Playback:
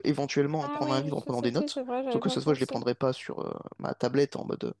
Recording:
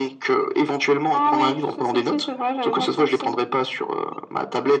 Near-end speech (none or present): none